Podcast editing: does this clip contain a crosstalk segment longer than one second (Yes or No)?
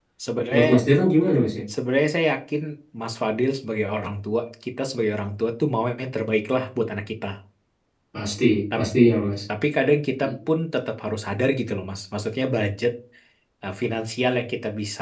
No